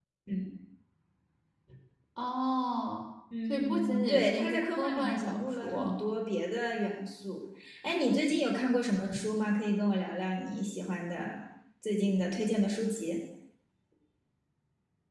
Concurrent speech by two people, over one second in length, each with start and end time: 3.5-5.9

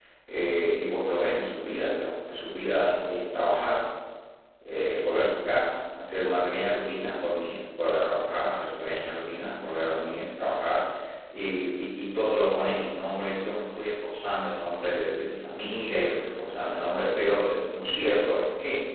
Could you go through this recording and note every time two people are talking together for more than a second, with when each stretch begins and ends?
none

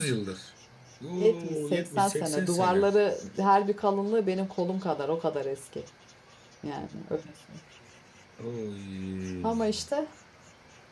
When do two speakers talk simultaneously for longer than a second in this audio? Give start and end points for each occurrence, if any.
1.2-2.9

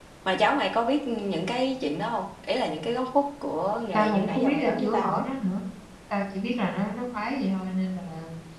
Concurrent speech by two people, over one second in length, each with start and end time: 3.9-5.2

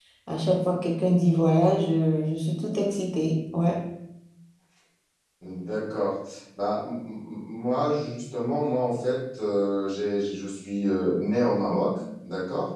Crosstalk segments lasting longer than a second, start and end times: none

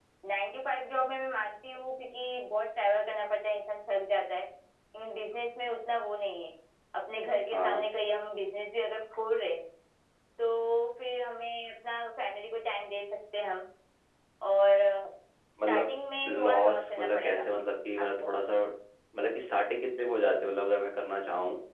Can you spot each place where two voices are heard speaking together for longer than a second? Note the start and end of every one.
16.3-17.5

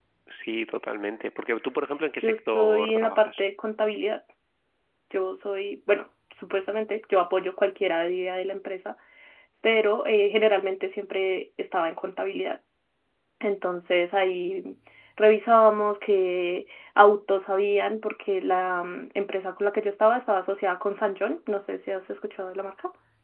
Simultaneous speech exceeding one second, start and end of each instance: 2.2-3.4

